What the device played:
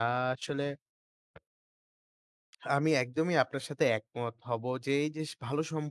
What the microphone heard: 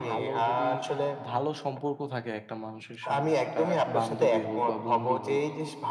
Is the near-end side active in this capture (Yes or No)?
Yes